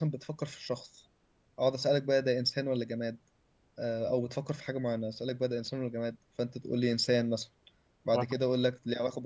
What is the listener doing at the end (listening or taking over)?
listening